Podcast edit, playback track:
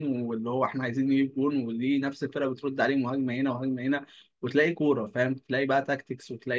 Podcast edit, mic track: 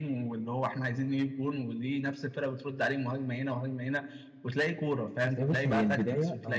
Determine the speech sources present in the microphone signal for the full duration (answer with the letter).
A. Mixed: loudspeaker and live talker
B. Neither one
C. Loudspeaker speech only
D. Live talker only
A